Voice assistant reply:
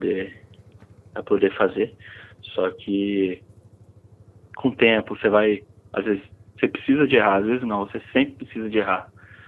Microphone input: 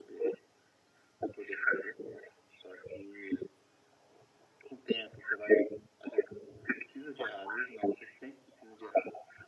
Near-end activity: none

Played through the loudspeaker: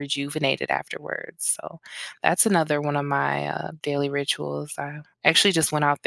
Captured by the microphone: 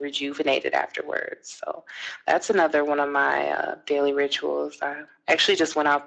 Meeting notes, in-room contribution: none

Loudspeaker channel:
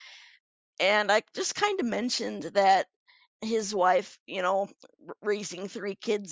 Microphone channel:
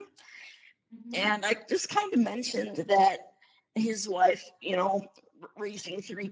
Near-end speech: present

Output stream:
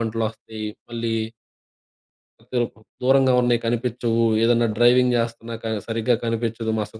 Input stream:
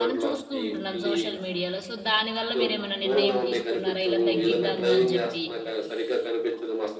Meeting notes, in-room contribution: present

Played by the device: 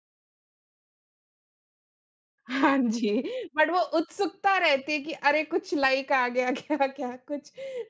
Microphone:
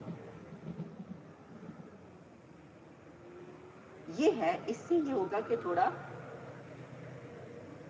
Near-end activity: present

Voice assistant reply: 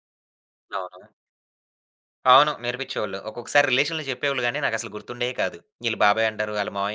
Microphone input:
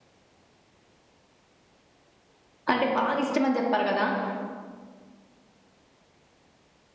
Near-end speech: present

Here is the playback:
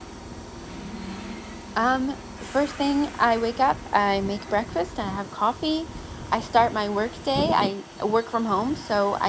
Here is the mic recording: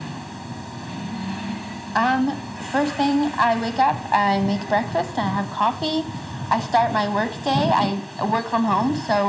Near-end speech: none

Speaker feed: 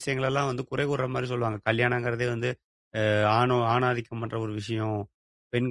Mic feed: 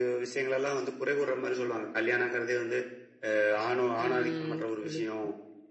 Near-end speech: present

